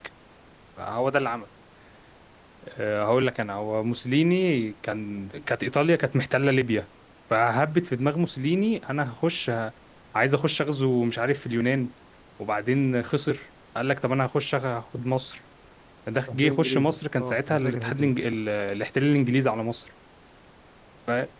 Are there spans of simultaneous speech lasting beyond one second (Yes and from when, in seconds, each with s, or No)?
Yes, from 16.3 s